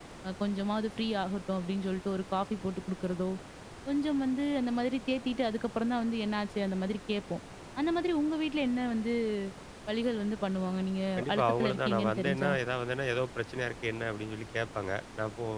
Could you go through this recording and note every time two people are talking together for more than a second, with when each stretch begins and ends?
11.2-12.5

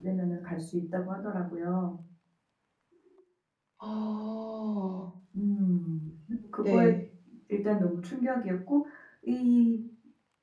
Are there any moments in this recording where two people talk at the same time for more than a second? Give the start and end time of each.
none

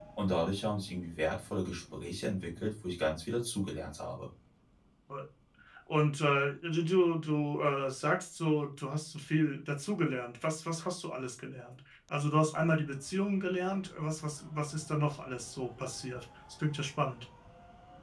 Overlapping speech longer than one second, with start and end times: none

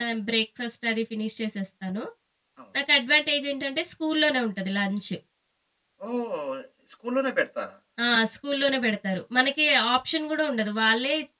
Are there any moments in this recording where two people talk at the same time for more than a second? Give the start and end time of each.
none

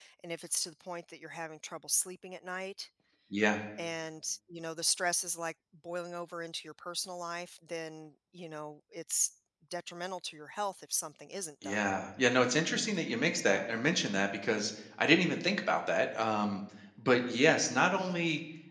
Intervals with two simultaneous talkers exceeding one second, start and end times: none

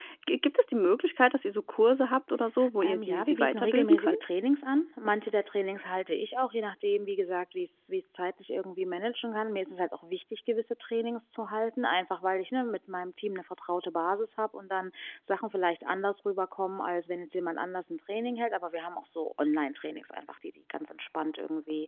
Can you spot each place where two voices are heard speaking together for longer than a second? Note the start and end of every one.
2.8-4.2

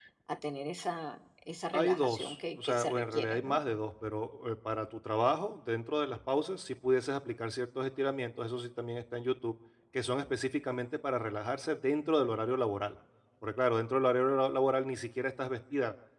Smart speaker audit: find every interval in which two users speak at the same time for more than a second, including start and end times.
1.7-3.6

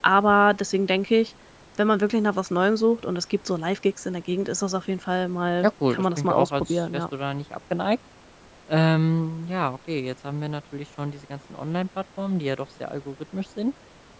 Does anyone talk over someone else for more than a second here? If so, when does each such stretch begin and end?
5.6-7.0

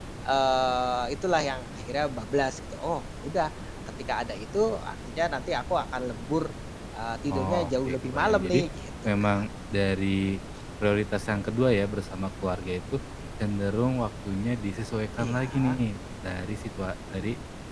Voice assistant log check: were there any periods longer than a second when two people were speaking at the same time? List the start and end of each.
7.3-8.6

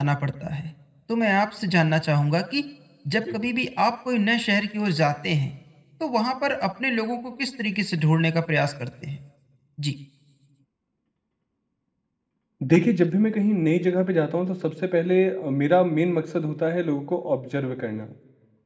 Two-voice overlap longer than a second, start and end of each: none

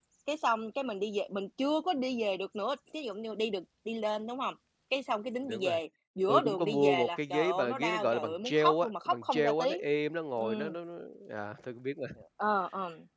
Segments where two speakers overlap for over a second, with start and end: 6.3-9.8

